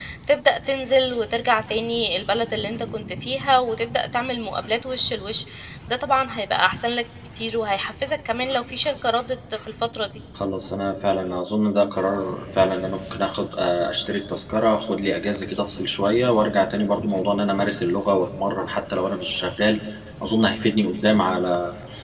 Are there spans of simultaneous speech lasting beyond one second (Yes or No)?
No